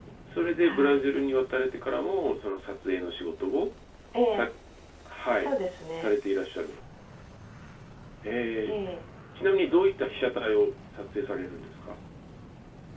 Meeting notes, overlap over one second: none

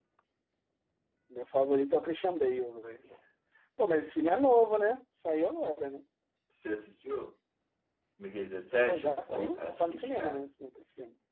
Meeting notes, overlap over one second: present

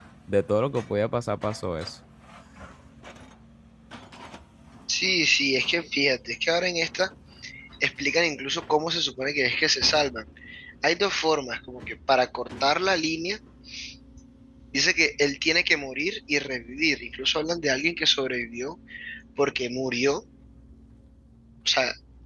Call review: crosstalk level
none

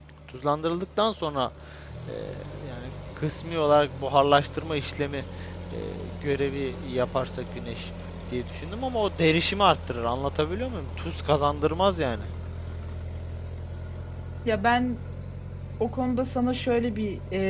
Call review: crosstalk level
none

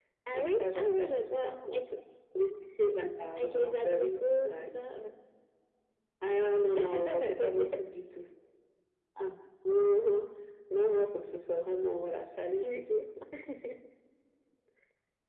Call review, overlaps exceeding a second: present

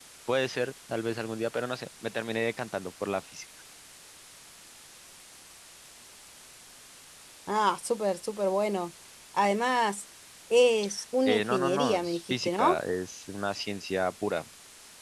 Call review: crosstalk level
present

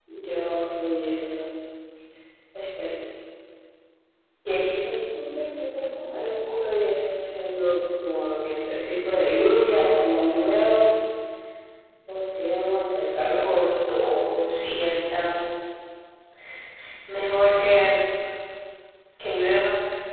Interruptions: none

